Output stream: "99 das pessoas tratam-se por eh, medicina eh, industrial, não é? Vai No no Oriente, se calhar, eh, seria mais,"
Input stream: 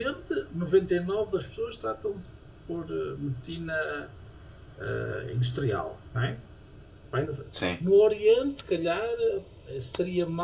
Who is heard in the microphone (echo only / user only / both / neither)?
both